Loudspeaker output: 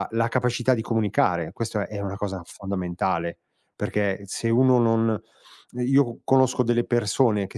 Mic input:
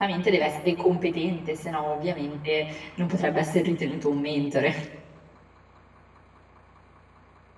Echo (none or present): none